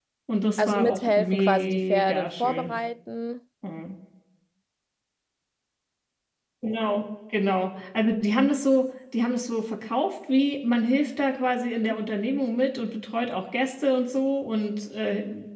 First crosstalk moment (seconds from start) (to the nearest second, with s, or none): 1 s